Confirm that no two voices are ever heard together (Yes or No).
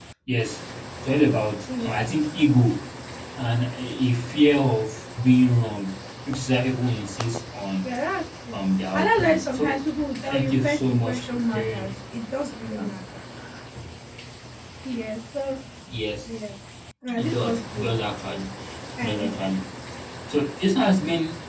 No